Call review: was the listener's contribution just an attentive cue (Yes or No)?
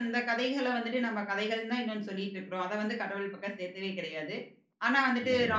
Yes